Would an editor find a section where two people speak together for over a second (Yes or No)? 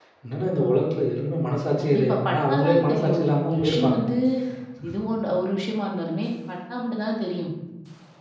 Yes